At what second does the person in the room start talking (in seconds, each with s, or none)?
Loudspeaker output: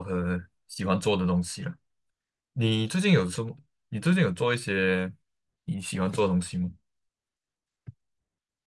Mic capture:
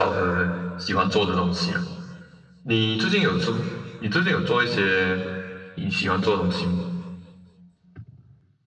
none